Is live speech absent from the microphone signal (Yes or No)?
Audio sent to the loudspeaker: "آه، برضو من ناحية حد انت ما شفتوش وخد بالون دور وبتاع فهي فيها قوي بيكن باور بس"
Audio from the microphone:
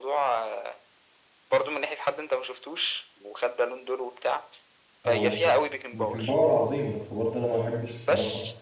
No